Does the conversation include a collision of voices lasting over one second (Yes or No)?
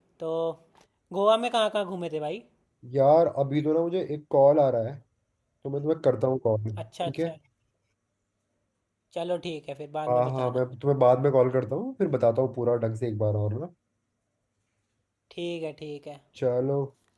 No